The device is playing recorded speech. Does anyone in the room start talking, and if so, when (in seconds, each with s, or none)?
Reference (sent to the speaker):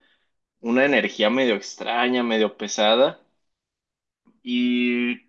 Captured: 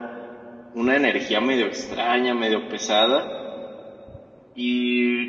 none